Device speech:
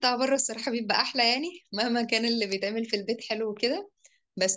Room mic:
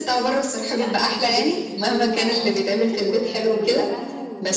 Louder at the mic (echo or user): echo